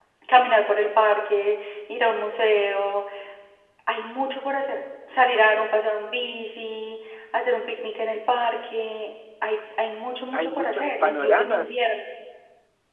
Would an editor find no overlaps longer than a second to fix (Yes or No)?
No